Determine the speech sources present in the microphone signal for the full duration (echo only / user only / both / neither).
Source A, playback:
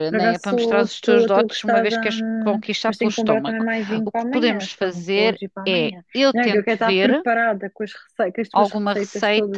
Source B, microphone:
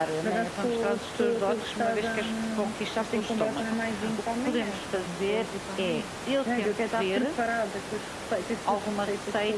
echo only